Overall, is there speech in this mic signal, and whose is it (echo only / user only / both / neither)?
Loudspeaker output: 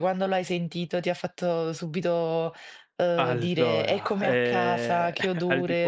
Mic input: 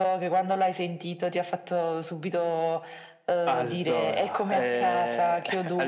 echo only